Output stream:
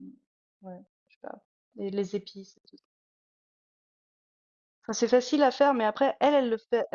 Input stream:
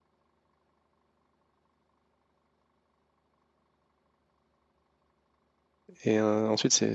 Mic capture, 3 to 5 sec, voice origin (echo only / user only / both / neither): neither